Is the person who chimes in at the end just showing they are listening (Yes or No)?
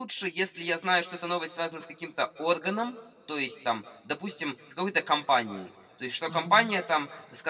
Yes